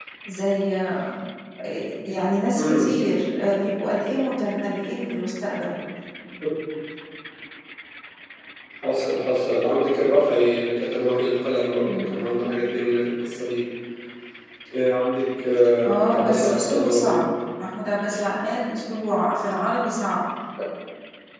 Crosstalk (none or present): present